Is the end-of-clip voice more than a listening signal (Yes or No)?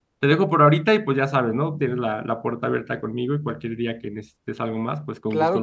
Yes